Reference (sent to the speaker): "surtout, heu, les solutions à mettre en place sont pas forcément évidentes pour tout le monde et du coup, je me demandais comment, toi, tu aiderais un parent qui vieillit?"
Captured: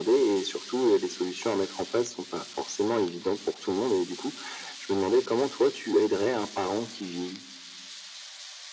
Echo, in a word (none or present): present